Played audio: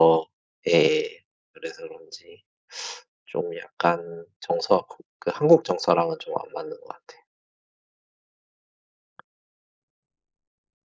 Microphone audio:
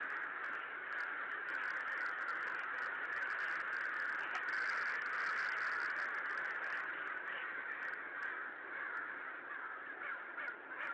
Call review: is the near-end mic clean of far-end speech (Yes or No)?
Yes